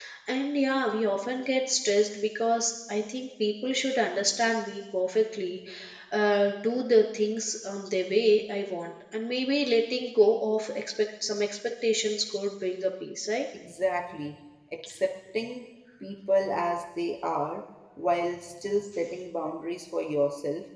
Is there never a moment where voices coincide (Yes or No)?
Yes